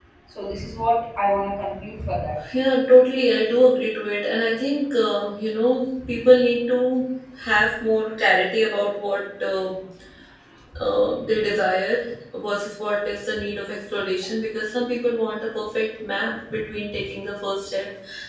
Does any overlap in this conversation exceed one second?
No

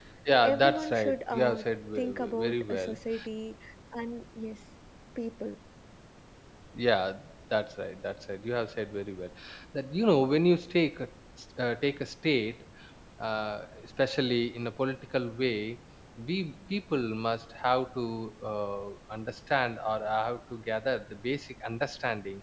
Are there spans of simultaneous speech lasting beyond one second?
Yes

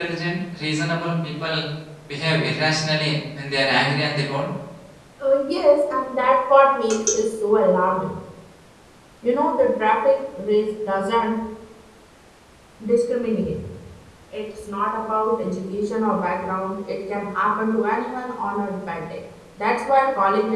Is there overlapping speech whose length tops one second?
No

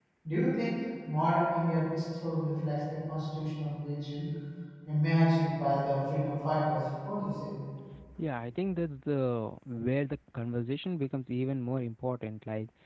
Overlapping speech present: No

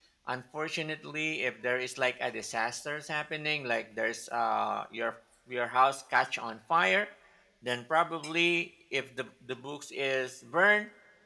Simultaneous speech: No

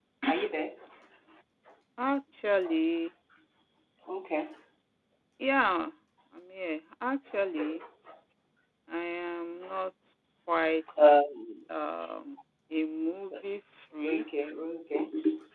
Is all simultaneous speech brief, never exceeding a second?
Yes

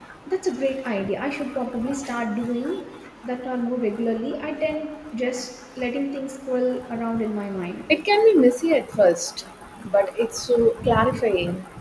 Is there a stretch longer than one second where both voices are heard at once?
No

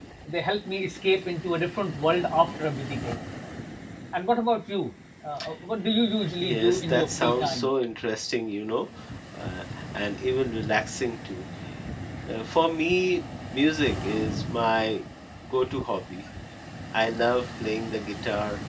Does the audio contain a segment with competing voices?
Yes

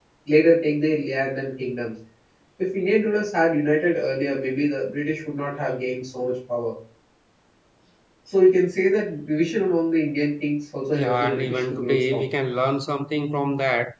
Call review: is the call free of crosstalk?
No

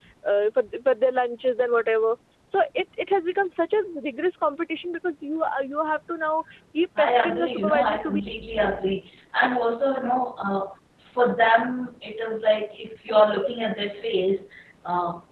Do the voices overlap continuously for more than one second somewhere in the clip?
Yes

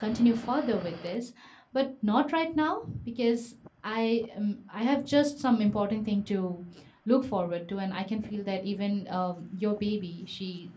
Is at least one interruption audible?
No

